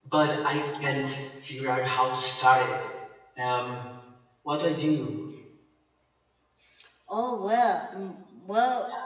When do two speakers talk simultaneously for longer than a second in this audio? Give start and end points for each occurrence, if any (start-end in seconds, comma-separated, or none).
none